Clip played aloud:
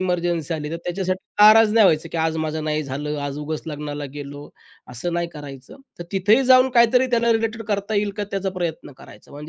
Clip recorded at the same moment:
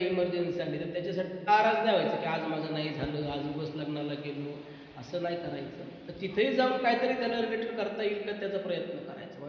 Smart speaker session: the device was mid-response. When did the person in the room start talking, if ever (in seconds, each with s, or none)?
none